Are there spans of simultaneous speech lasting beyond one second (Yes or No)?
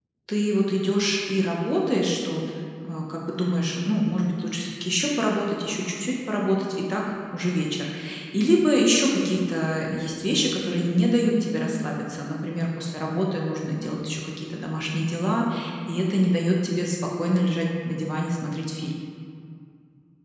No